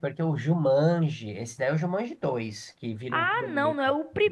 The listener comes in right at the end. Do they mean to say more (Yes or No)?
Yes